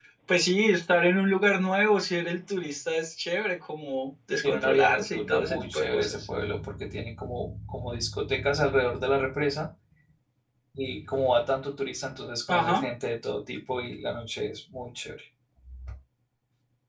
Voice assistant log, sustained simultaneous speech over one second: present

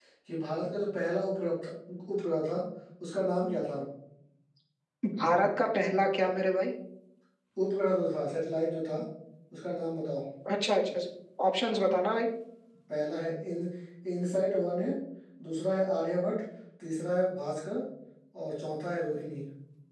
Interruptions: none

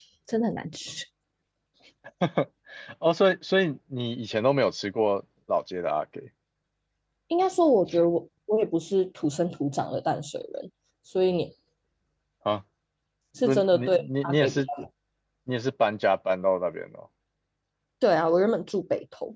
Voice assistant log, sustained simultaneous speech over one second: present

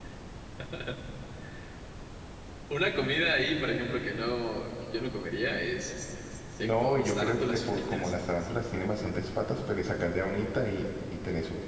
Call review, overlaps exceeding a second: present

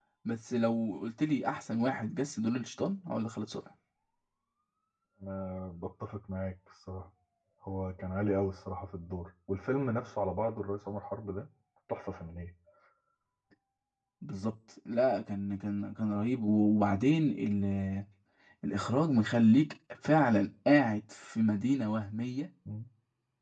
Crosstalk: none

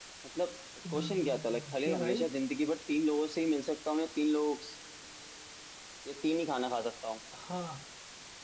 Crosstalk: present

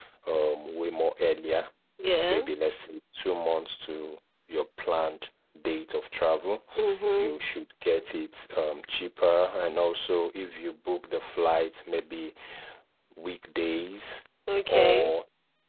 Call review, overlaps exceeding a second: none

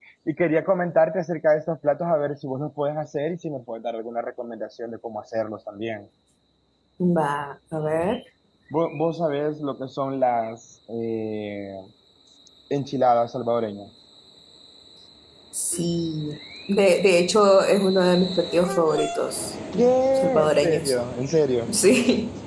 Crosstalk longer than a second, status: present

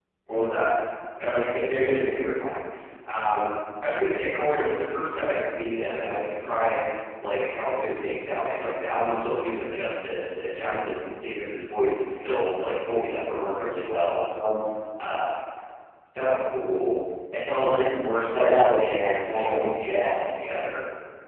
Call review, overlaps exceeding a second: present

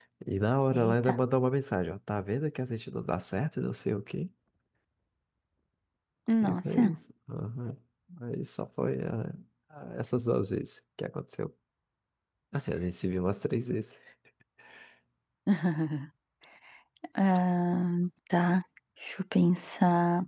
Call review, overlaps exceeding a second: none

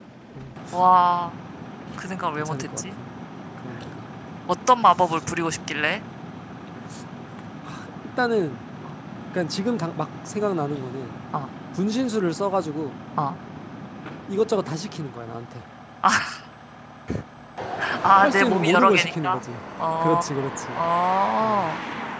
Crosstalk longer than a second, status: present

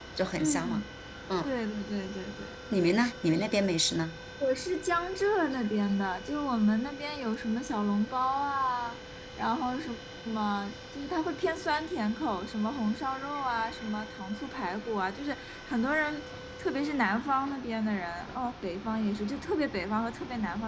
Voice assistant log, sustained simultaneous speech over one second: none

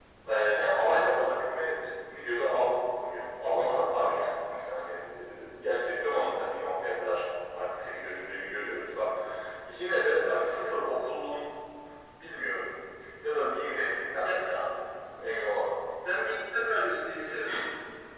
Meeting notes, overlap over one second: none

